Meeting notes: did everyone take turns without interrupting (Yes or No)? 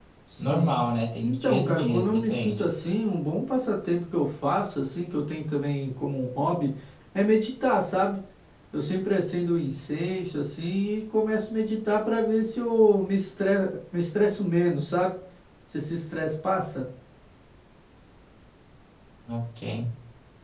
No